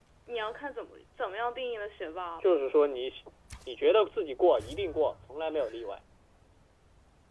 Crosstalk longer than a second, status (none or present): none